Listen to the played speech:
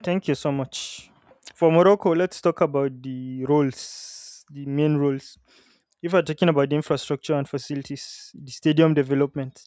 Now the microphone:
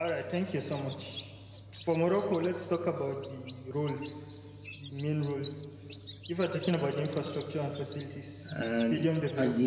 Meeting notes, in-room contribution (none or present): present